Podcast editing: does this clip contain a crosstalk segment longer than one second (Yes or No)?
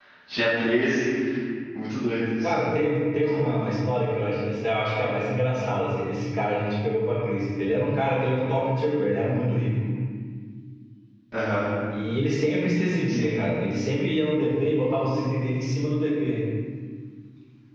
No